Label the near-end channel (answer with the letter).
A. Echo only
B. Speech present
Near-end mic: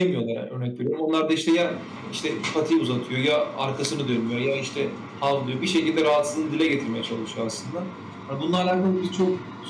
A